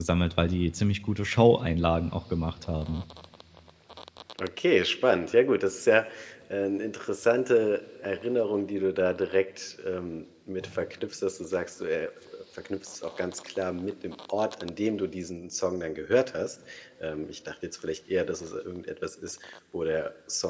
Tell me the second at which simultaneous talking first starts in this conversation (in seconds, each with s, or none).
none